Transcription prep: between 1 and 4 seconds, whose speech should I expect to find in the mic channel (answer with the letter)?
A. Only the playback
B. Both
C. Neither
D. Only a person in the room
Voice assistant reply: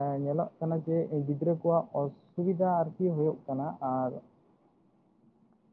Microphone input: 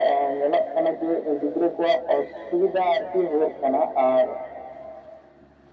A